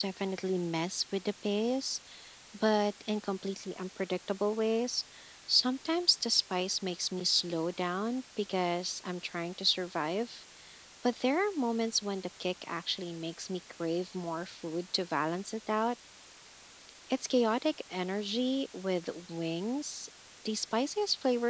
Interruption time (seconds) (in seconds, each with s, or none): none